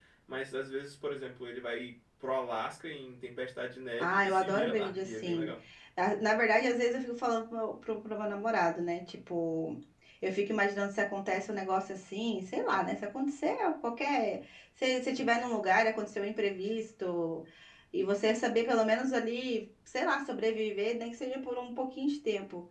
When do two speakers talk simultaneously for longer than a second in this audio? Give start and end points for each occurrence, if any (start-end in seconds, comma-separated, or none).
4.0-5.5